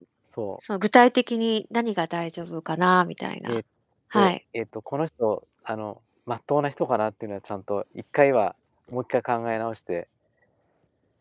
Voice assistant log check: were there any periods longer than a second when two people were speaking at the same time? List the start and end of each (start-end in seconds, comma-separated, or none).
none